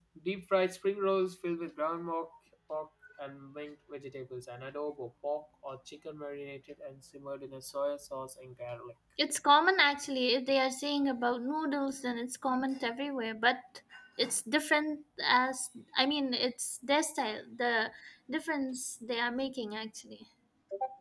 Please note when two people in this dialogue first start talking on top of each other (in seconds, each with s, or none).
none